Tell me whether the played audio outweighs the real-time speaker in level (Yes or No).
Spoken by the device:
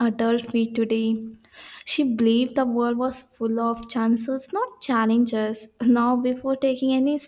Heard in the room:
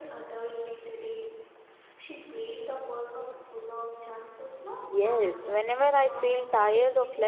No